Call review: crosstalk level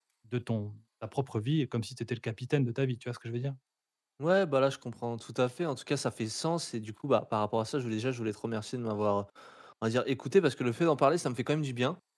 none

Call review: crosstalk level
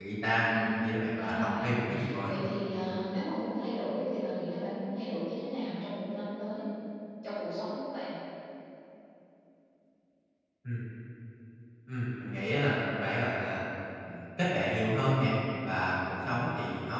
present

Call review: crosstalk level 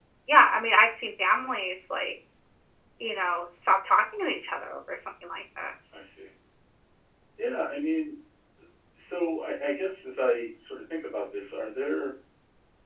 none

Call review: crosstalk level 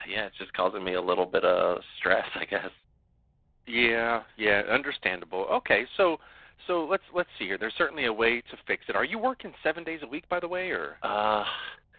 none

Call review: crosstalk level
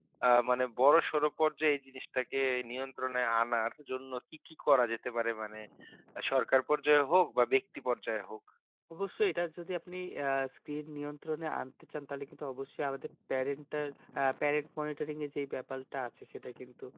none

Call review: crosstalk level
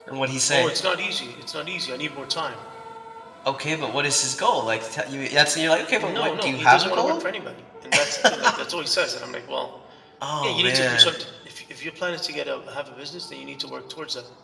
present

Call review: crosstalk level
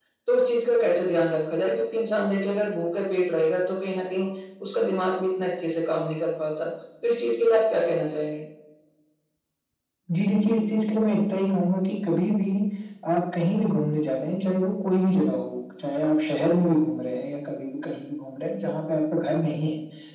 none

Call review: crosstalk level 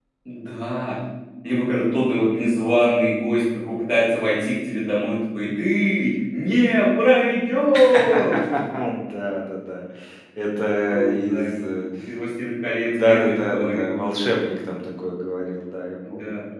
present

